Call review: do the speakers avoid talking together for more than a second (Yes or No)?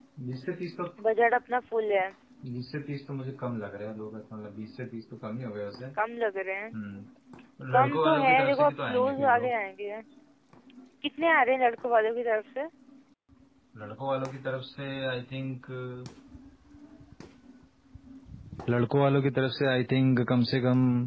No